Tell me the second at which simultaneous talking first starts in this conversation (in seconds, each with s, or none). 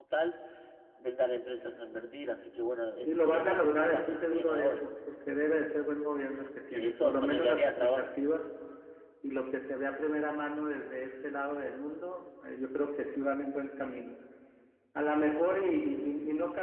3.0 s